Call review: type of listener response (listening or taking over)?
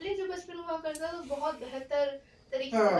taking over